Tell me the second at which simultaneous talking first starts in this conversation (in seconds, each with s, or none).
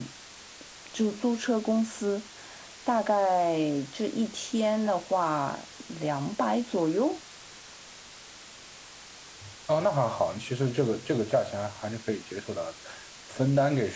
none